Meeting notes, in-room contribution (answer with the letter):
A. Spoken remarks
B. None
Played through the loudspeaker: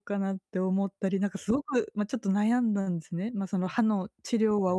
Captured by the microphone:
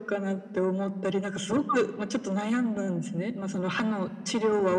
B